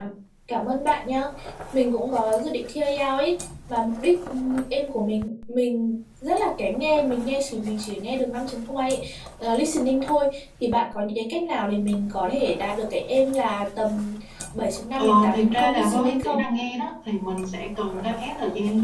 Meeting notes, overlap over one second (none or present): present